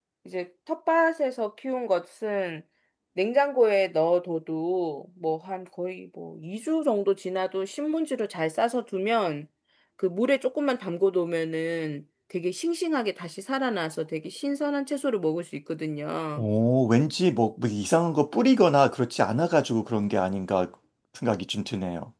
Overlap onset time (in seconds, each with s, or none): none